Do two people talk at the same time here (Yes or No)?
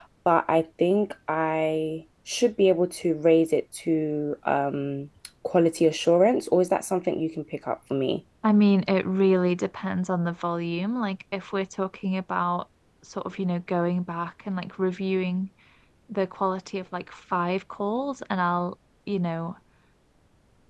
No